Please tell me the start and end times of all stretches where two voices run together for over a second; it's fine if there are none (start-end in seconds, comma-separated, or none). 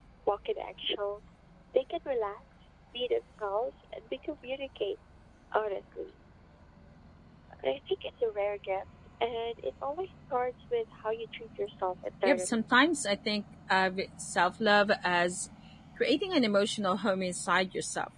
none